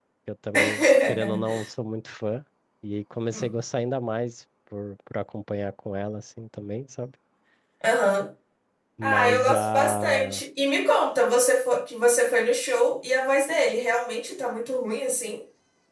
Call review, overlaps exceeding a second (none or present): present